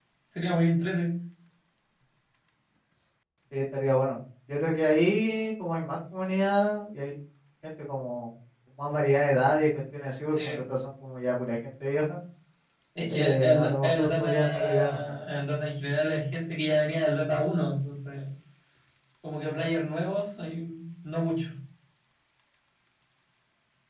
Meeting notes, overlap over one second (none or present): present